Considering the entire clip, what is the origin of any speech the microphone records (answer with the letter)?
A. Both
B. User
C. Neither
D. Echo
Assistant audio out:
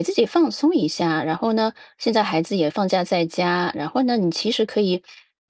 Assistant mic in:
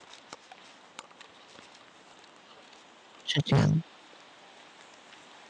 B